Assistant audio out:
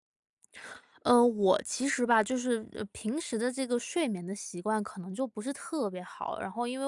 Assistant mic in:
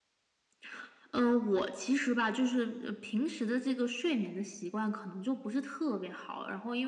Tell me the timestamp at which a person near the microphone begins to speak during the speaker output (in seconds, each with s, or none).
none